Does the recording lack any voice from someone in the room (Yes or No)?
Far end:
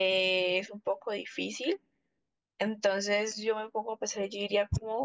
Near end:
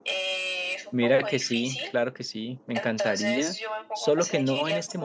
No